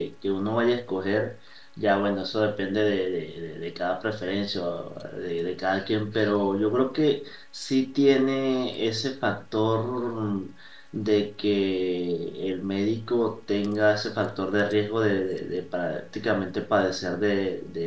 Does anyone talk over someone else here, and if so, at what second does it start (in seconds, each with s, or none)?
none